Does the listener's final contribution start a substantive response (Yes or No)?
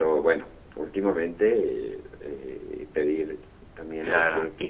Yes